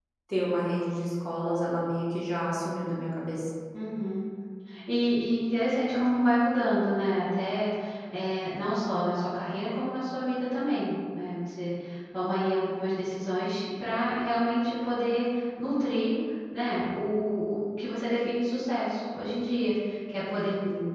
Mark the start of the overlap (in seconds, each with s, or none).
none